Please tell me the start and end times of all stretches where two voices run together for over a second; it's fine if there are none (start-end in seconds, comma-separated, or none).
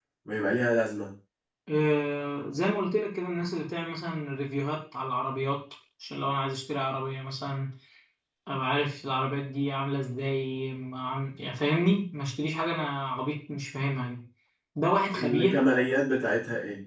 none